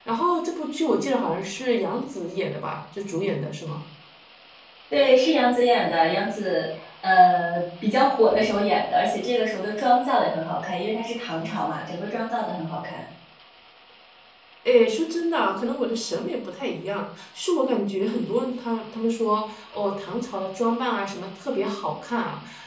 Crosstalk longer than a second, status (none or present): none